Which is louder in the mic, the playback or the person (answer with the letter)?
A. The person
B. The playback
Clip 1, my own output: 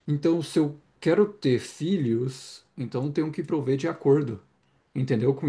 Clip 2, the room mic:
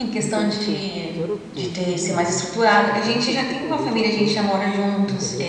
A